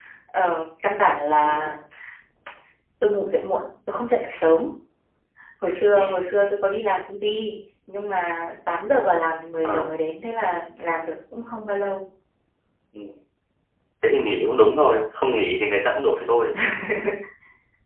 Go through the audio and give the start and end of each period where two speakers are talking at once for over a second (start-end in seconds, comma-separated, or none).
none